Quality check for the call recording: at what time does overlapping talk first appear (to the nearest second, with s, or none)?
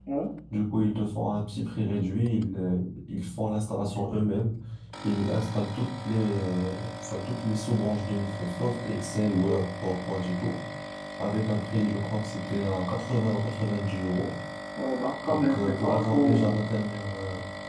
15 s